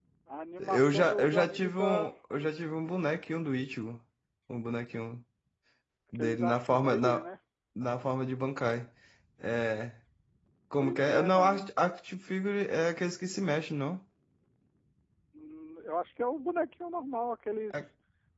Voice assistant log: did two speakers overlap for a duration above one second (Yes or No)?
Yes